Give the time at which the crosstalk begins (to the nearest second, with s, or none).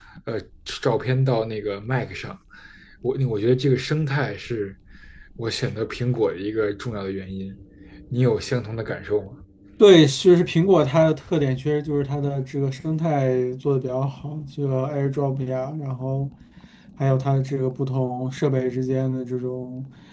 none